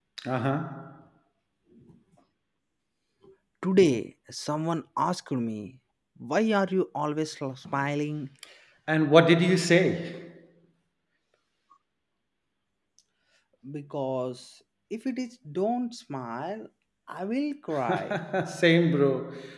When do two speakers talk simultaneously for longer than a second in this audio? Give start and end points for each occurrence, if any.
none

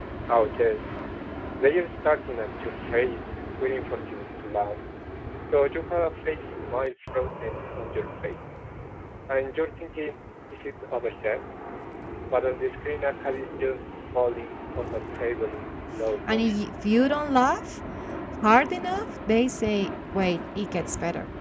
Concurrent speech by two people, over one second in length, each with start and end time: none

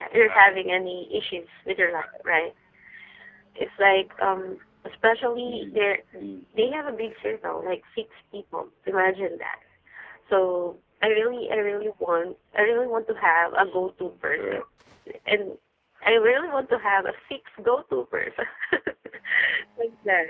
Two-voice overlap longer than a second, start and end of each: none

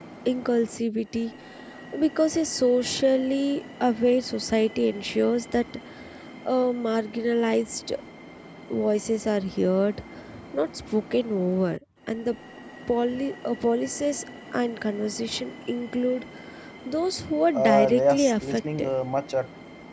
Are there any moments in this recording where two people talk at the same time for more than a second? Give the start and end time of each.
17.5-18.9

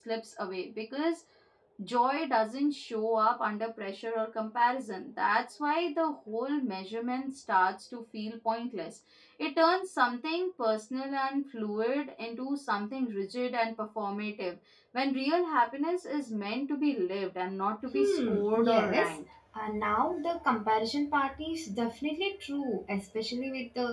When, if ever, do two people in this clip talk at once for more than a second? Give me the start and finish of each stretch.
17.9-19.2

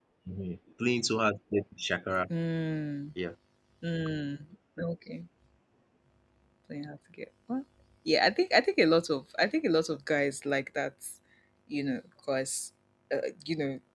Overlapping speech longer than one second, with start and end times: none

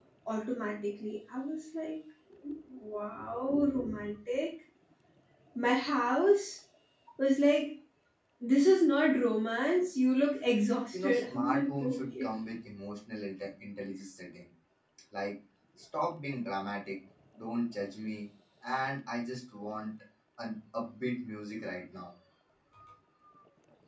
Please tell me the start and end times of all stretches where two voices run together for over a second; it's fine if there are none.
10.9-12.3

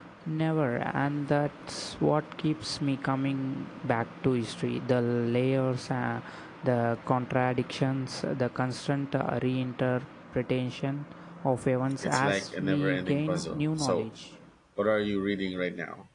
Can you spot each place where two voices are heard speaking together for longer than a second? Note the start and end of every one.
12.0-14.1

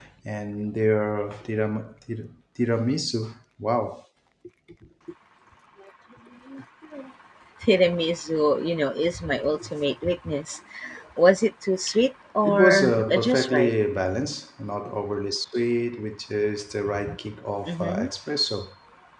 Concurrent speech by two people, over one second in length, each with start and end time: 12.4-13.7

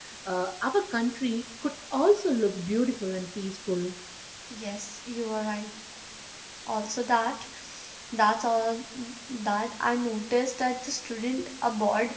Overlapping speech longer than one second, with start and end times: none

